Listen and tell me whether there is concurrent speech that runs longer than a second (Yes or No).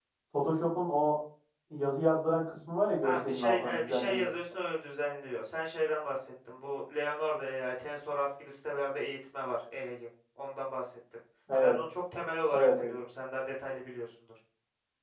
Yes